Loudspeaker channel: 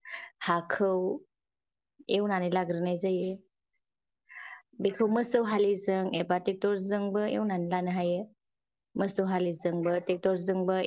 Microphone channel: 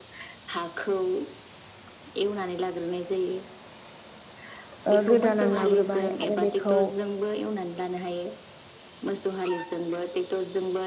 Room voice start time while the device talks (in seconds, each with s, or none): 4.9 s